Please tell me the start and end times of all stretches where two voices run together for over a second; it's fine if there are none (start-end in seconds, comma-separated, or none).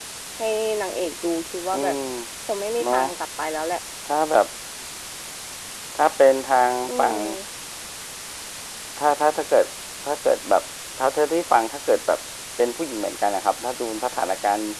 none